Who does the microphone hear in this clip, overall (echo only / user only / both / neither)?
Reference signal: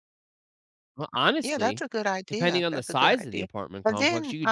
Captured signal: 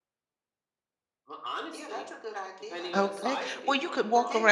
both